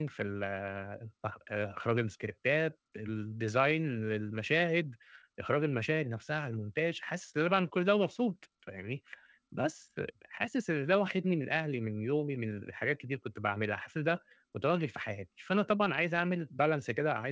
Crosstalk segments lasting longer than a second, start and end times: none

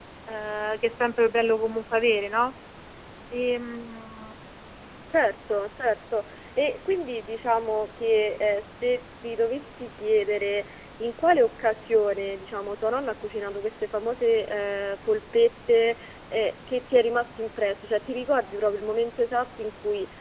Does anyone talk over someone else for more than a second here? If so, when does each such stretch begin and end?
none

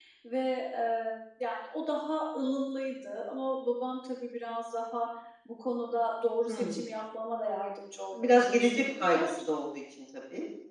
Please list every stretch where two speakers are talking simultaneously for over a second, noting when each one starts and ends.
8.1-9.5

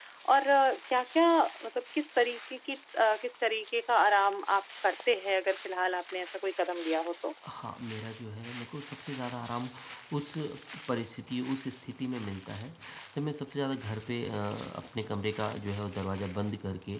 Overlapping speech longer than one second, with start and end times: none

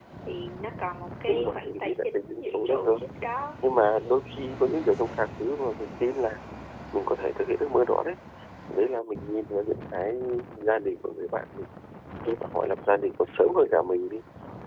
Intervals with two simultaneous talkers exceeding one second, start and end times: 1.3-3.0

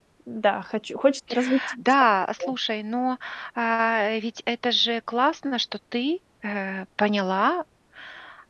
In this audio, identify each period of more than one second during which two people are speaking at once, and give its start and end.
none

